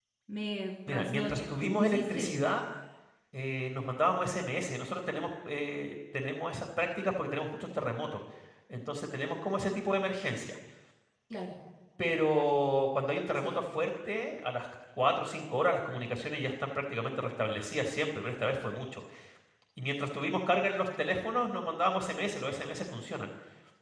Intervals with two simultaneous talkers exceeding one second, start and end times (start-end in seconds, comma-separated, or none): 0.9-2.4